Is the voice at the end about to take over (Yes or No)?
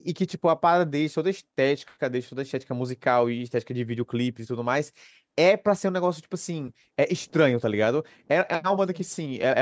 No